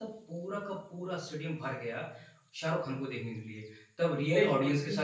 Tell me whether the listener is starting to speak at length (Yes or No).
No